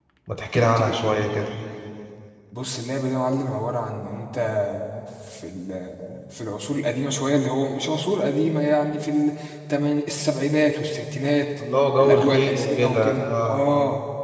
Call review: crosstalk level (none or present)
present